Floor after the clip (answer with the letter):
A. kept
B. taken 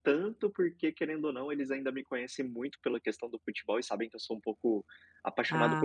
A